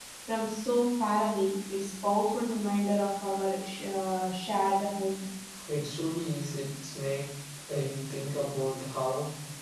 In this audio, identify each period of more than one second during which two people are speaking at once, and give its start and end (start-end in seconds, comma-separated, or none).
none